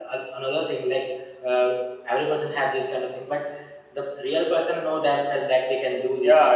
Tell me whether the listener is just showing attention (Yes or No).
No